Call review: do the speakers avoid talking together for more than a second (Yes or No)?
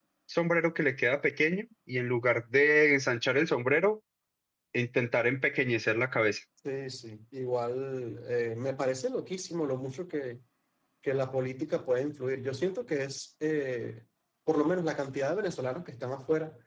Yes